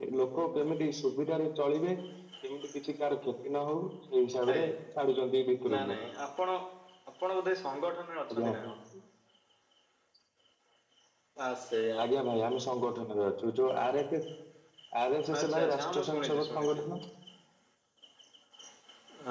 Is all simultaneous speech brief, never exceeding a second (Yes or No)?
No